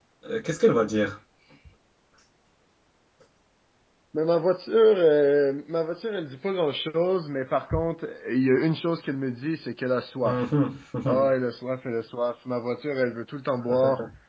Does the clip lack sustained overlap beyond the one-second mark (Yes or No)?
Yes